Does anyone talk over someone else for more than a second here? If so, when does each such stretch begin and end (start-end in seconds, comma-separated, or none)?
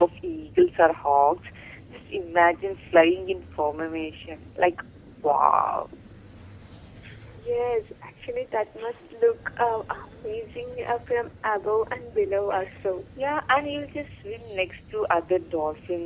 none